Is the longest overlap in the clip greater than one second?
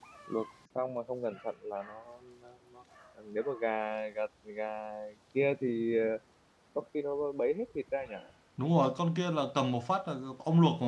No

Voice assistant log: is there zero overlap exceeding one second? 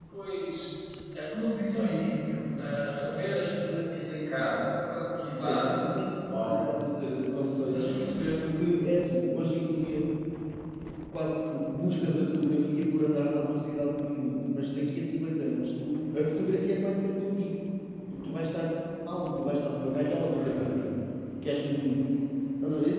Yes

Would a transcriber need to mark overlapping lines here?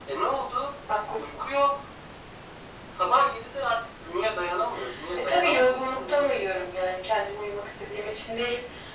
Yes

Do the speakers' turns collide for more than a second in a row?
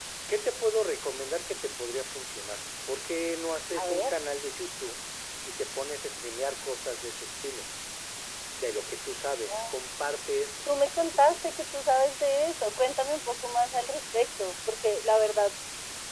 No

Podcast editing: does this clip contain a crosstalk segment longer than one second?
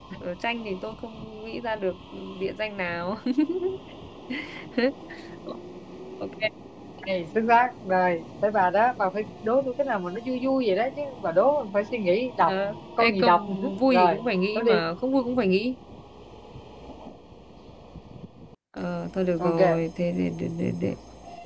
Yes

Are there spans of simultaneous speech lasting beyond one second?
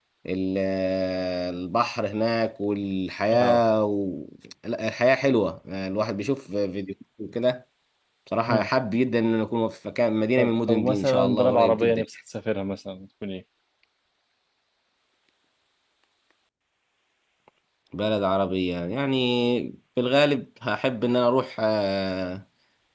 Yes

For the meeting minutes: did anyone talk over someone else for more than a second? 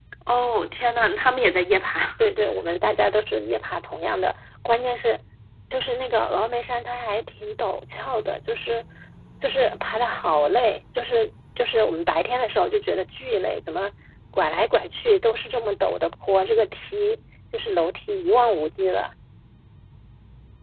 No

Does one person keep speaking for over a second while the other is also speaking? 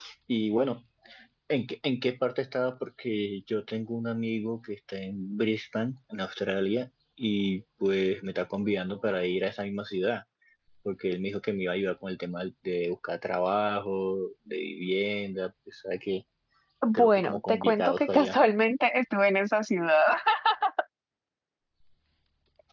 Yes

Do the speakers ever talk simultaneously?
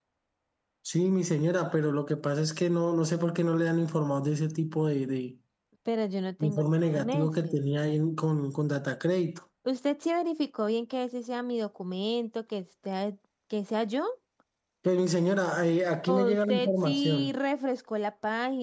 Yes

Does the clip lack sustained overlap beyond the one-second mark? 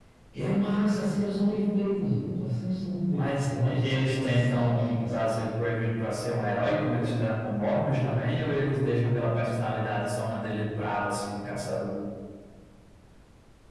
No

